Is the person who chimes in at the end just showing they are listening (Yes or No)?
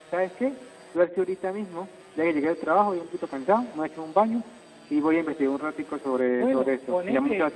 No